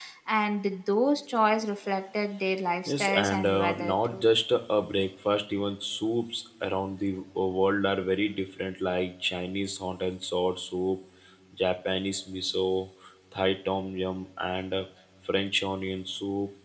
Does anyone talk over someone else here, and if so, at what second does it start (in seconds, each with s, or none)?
2.9 s